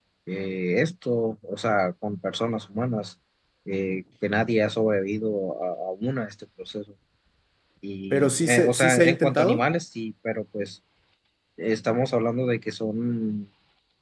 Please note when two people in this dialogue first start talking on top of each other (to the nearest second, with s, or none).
8 s